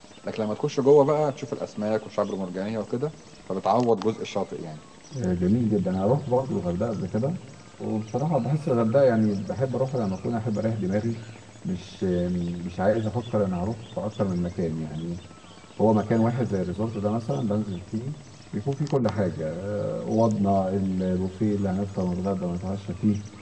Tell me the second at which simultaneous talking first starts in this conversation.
none

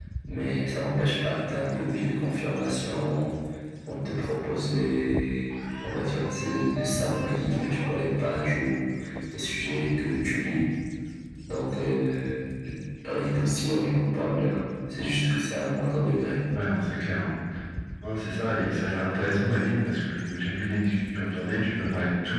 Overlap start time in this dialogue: none

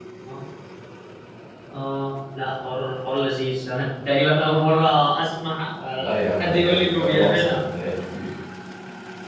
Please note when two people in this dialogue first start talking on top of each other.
6 s

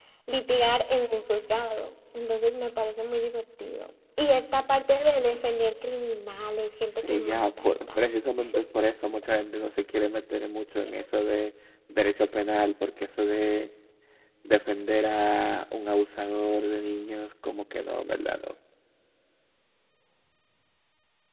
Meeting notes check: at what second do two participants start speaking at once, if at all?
7 s

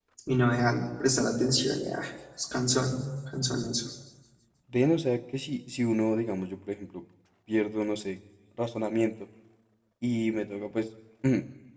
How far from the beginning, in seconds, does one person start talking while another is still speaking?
none

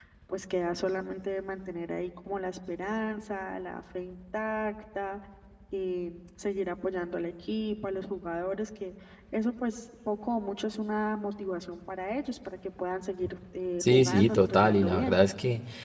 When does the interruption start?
14 s

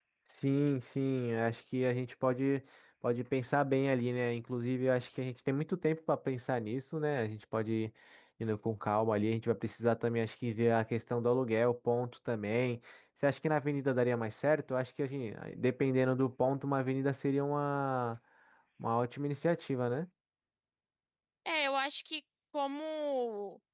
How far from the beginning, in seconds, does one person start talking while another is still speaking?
none

